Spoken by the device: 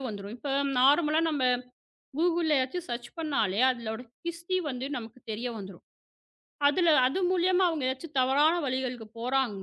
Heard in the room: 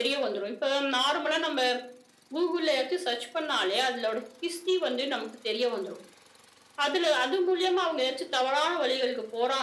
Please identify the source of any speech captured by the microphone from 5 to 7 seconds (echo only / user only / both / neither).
echo only